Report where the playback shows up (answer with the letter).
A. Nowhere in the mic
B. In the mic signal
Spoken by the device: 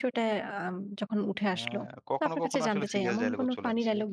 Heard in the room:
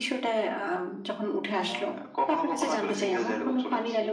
B